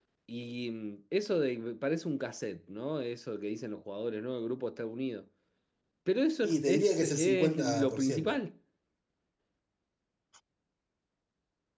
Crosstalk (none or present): present